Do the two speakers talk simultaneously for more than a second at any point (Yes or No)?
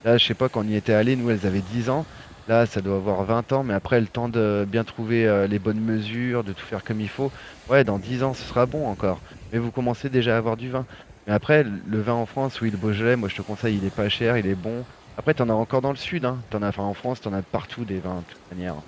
No